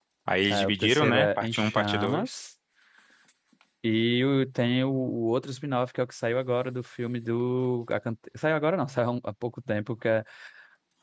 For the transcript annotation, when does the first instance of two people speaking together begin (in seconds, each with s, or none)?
0.5 s